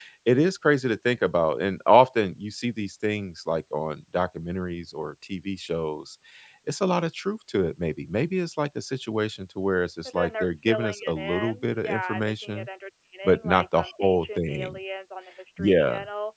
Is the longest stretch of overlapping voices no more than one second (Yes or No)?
No